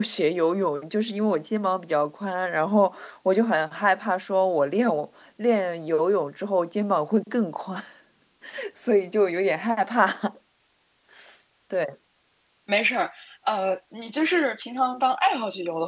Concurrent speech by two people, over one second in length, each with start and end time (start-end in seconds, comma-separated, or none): none